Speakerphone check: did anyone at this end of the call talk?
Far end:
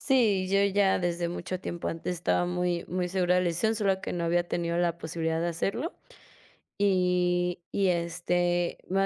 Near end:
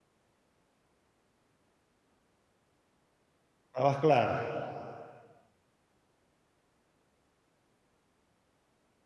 Yes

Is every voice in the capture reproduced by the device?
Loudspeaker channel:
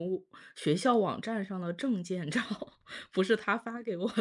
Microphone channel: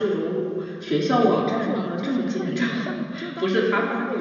No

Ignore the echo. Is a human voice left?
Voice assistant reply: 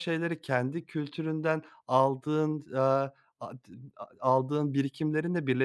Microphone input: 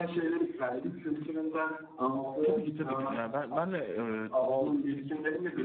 Yes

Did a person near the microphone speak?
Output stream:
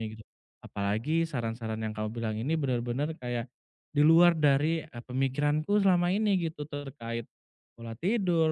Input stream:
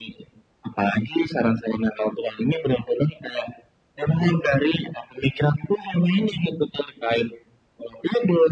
No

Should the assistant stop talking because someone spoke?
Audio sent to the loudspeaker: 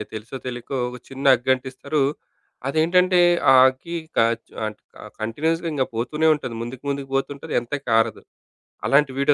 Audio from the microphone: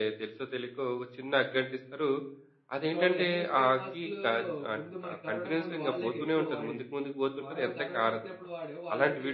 Yes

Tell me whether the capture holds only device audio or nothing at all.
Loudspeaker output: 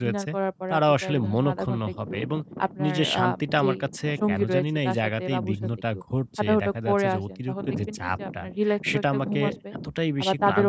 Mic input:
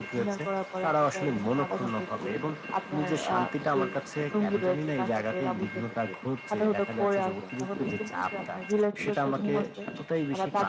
Yes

